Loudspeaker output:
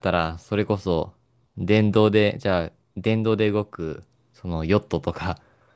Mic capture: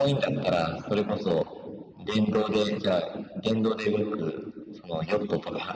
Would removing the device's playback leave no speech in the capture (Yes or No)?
Yes